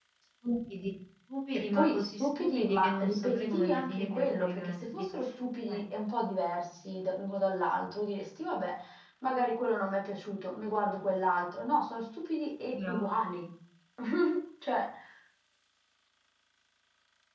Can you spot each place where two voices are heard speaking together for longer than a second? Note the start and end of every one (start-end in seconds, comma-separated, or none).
1.7-4.8